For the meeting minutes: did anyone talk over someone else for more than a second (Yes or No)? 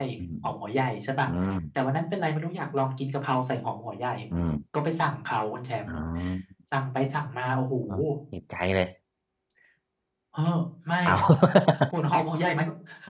No